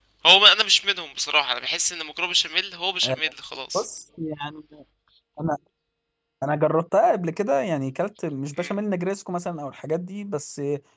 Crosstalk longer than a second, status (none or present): none